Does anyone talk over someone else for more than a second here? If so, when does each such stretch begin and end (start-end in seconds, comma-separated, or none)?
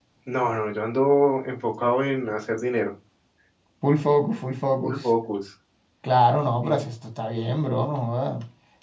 none